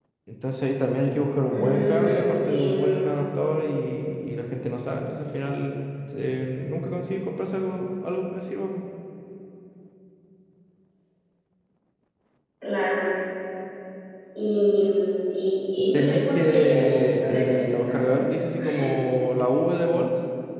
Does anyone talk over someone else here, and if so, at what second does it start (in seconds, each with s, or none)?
1.5 s